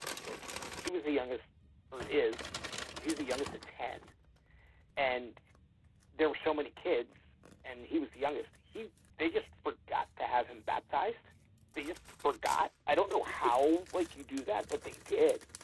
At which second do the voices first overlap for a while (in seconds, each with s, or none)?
none